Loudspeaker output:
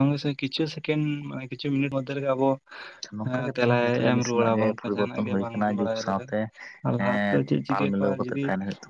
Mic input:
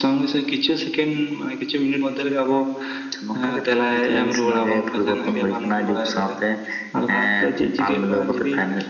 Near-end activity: none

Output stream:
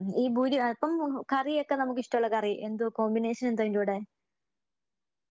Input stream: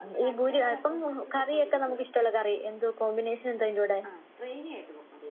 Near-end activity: present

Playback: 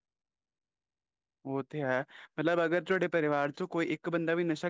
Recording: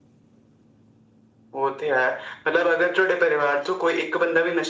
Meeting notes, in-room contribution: none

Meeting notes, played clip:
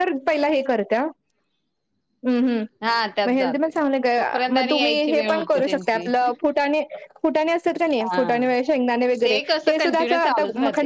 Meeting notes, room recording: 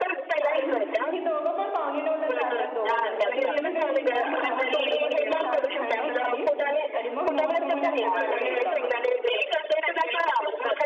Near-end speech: present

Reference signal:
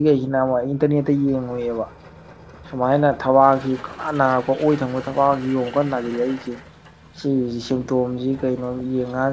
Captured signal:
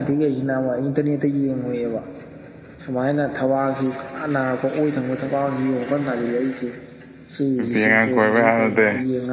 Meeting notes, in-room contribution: present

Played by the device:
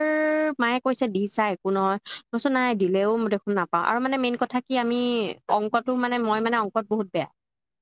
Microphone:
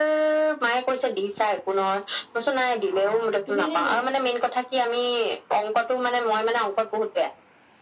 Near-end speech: present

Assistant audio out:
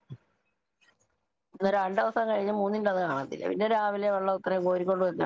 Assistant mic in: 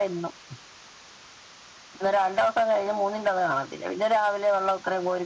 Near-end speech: none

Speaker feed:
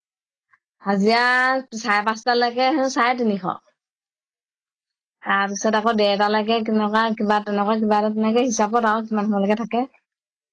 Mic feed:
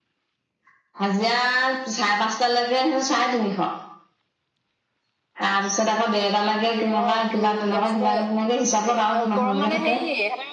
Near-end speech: present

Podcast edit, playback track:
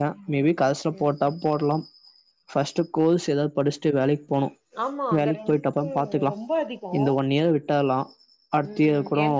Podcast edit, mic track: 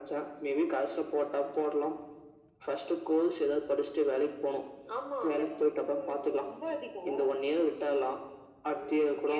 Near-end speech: none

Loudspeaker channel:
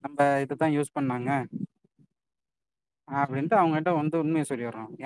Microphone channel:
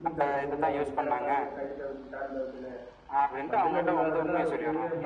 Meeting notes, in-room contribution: present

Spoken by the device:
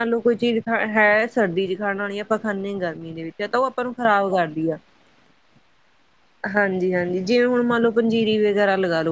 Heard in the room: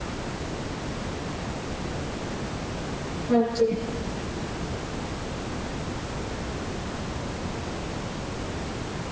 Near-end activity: present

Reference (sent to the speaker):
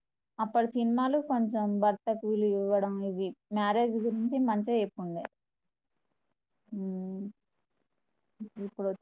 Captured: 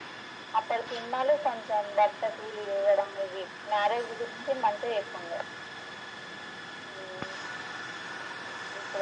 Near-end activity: none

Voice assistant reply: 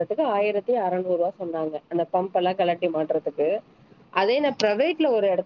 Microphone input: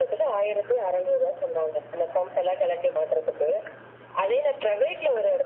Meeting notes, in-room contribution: none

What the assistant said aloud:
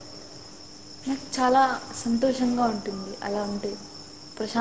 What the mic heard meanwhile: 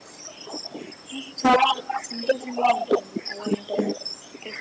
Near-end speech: none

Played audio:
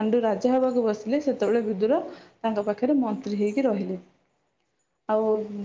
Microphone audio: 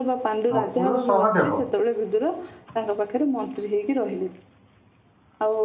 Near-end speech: present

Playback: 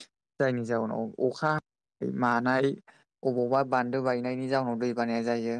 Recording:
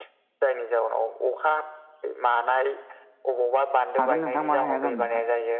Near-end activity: present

